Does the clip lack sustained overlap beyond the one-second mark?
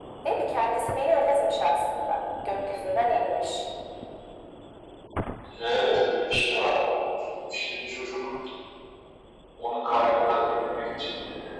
Yes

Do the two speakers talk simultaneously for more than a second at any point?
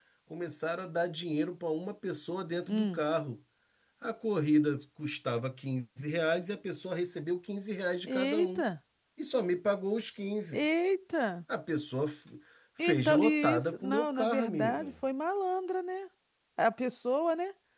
Yes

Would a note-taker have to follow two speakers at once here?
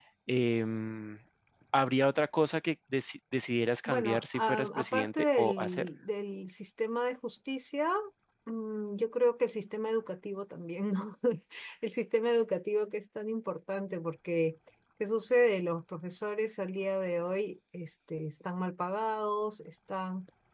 Yes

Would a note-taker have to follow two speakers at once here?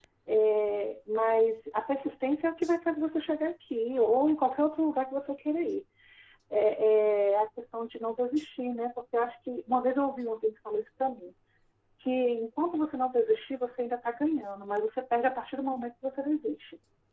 No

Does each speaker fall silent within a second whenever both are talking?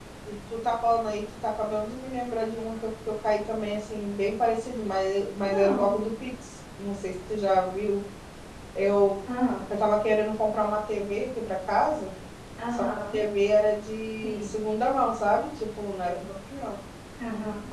Yes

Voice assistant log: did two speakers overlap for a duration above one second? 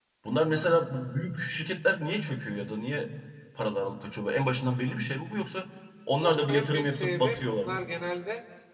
Yes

